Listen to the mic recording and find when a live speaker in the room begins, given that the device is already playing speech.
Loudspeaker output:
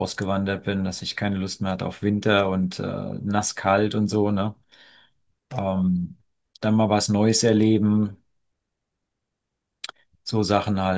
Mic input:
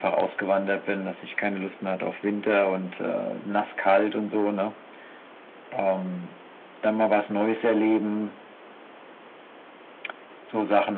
none

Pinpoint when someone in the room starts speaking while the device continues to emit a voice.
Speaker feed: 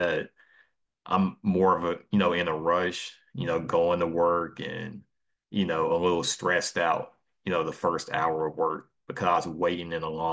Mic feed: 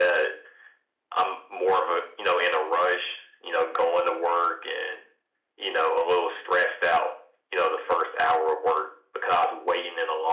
none

